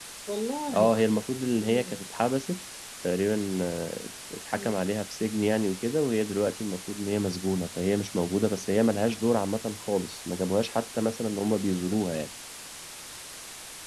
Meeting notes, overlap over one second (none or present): none